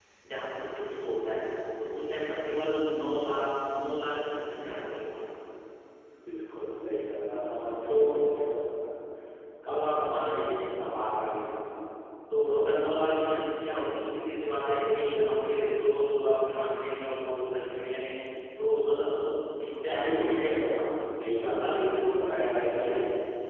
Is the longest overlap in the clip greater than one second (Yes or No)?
Yes